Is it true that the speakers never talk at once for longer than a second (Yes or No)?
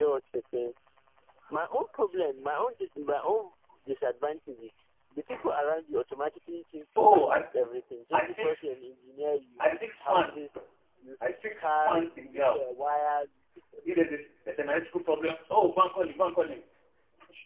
No